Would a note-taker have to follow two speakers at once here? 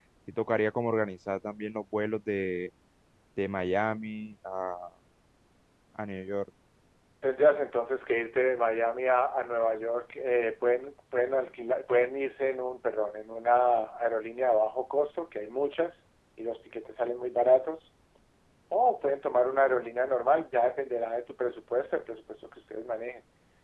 No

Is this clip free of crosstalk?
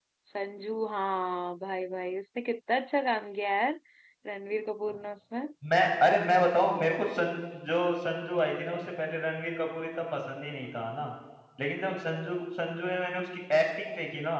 Yes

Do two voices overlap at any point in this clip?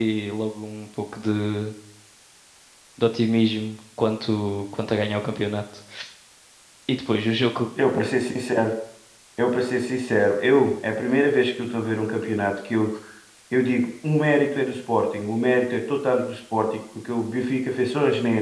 No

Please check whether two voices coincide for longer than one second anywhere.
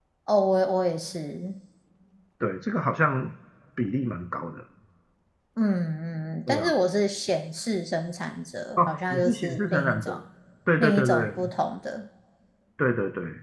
Yes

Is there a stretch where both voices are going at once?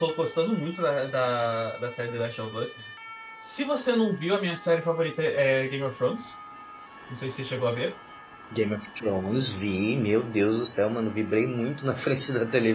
No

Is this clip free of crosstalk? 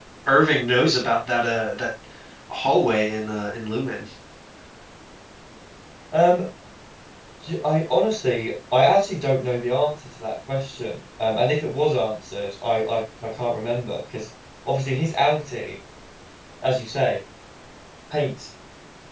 Yes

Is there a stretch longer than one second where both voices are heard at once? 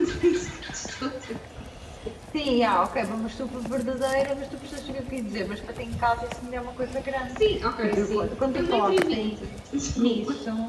Yes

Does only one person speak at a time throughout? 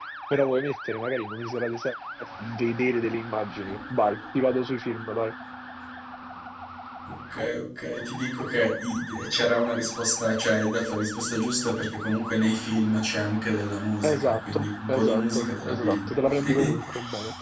No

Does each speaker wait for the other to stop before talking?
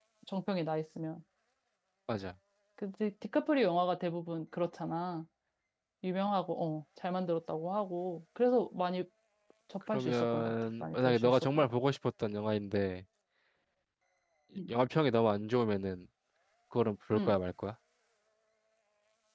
No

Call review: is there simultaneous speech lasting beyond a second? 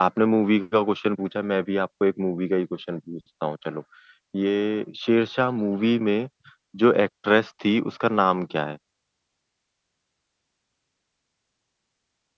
No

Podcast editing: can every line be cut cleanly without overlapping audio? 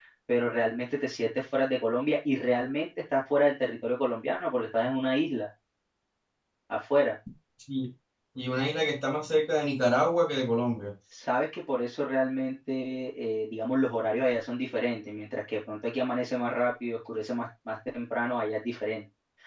Yes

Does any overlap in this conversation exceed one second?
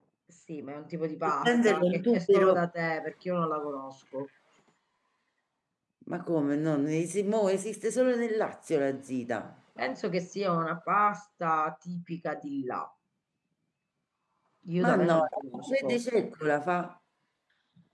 Yes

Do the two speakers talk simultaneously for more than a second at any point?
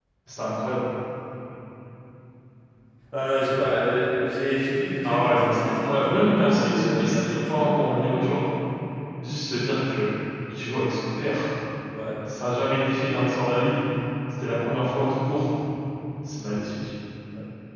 Yes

